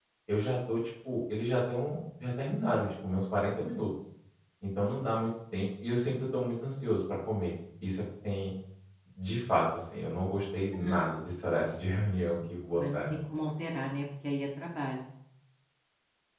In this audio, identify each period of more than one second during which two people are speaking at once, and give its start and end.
none

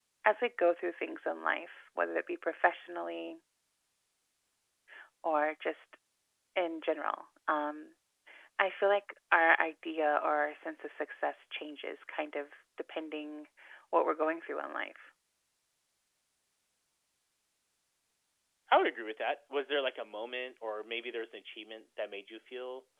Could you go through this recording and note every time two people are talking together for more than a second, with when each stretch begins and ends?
none

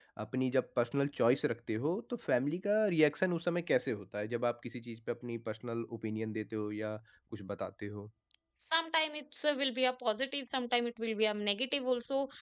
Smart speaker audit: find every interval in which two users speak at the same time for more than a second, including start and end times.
none

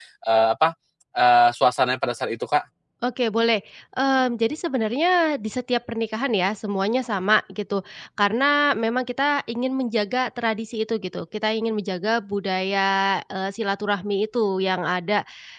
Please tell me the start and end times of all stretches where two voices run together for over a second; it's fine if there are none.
none

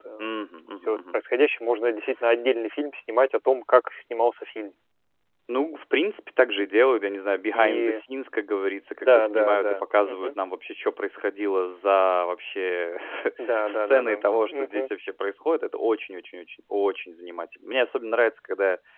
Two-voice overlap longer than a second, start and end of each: 9.0-10.4, 13.6-14.9

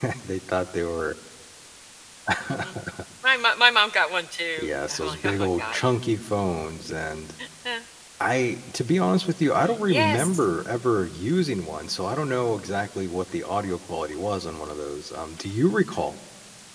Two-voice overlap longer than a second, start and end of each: 4.6-5.9

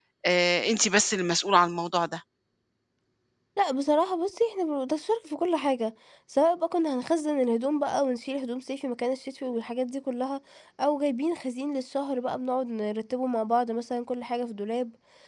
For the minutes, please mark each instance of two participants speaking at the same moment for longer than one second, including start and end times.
none

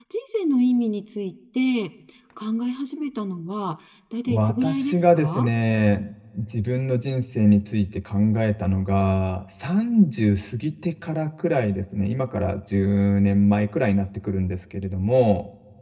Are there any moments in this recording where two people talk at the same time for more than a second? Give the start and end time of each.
4.3-5.5

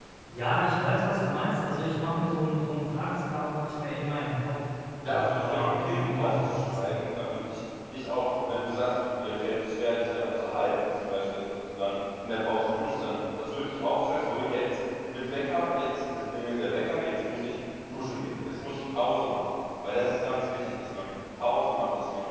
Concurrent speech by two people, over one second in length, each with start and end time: 5.1-6.9

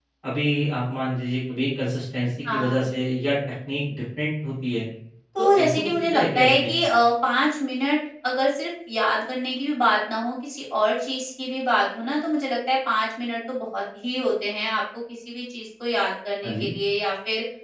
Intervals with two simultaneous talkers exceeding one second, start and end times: 5.4-6.8

